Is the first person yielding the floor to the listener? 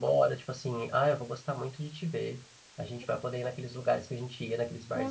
Yes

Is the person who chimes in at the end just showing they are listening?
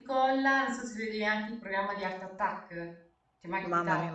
No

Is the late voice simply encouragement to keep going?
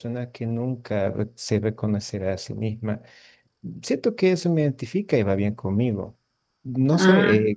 Yes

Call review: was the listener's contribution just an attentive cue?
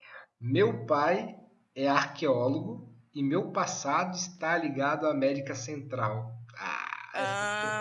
No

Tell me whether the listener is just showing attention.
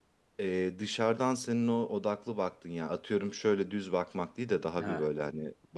Yes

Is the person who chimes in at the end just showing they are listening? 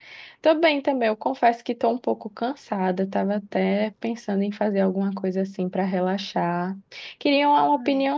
Yes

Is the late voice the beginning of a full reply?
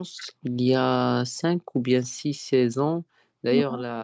No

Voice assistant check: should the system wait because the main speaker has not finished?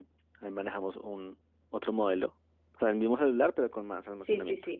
No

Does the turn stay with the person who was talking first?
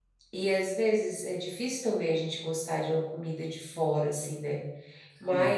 Yes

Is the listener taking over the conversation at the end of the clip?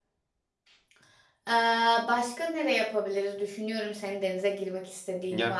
Yes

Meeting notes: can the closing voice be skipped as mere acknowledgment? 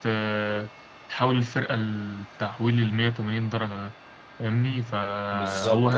Yes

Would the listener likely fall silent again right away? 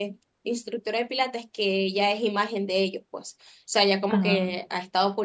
Yes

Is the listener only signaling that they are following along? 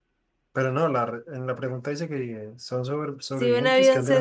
No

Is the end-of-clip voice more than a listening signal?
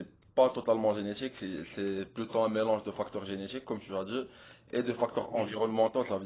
No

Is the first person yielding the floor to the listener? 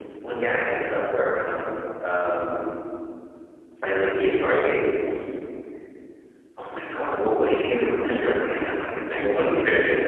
Yes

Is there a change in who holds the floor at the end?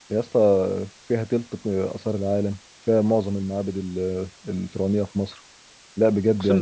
No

